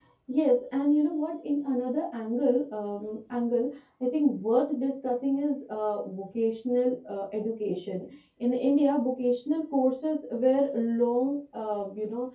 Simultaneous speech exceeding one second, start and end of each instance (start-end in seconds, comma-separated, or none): none